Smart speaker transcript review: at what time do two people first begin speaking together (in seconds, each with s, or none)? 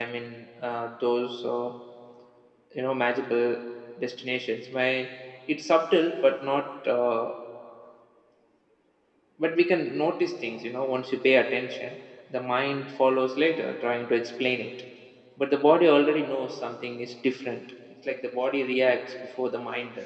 none